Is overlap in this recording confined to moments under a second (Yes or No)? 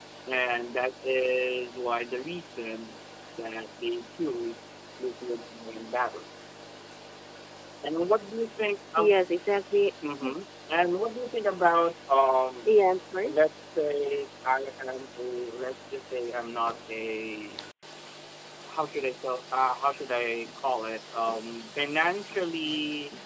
Yes